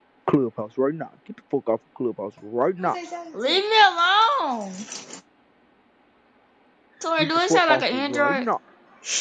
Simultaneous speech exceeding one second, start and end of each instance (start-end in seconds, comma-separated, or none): 7.2-8.4